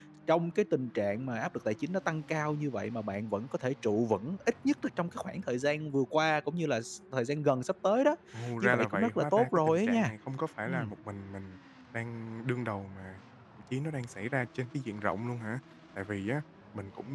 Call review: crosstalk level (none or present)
present